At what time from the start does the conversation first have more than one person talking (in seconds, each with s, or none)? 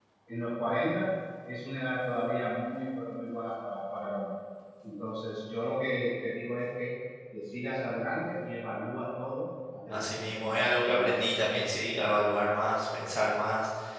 9.9 s